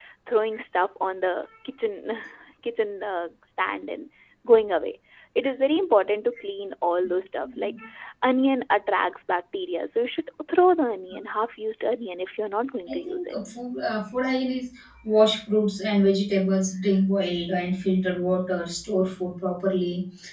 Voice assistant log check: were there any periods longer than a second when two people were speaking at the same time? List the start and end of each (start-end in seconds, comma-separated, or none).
none